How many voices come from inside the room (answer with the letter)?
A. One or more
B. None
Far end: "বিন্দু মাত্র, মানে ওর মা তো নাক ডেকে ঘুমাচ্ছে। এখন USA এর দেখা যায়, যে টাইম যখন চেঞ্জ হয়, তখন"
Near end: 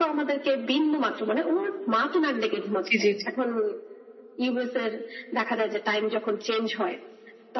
A